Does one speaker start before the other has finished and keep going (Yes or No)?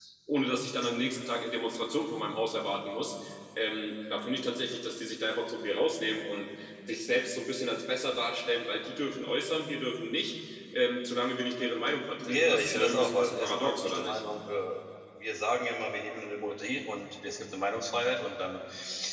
Yes